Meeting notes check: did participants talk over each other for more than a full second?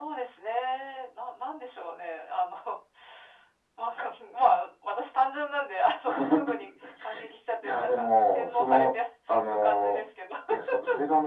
Yes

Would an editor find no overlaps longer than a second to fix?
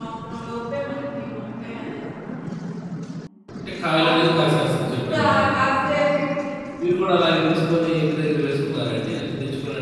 Yes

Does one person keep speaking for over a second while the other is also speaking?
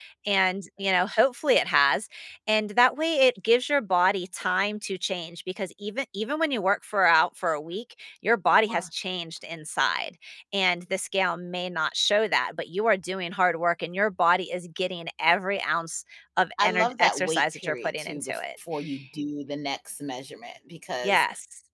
Yes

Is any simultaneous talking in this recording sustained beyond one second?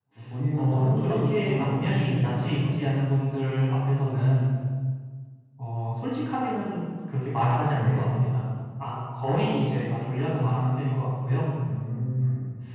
Yes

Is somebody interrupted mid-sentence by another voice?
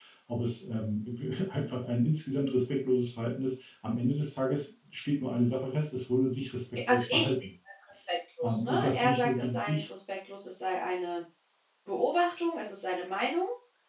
Yes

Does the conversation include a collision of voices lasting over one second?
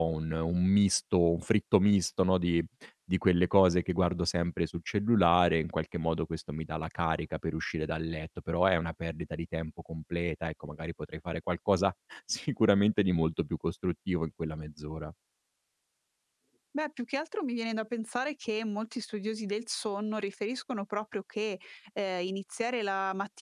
No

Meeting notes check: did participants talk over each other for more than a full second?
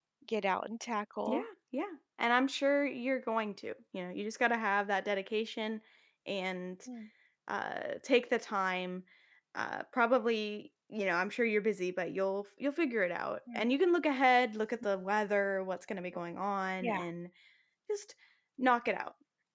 No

